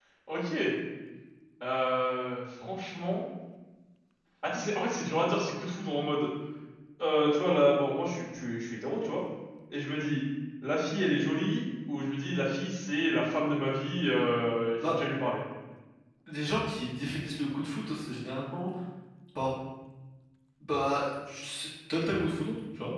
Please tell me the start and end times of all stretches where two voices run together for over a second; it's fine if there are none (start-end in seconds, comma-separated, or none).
none